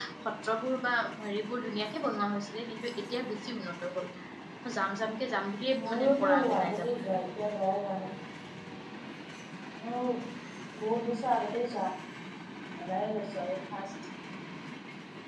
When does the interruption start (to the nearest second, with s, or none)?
6 s